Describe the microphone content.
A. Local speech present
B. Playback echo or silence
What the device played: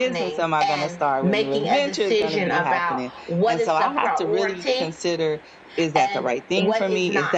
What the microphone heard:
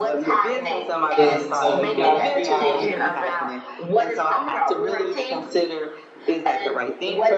A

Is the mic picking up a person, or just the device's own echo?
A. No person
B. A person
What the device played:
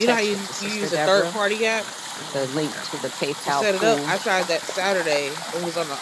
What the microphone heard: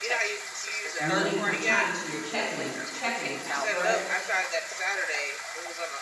B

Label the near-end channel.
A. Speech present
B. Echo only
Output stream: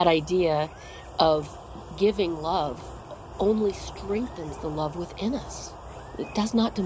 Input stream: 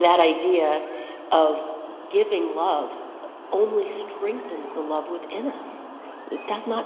B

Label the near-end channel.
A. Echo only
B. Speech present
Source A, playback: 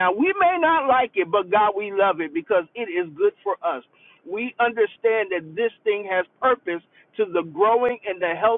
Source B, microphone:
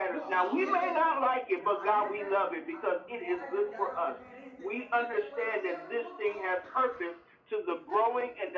B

